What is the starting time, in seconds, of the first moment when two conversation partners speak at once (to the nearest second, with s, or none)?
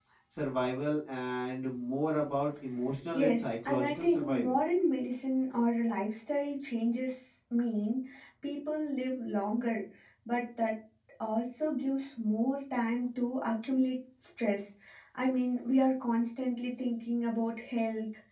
3 s